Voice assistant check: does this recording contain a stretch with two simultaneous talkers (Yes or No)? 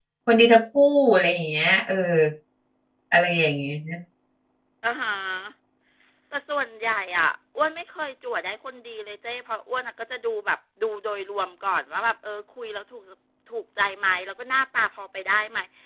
No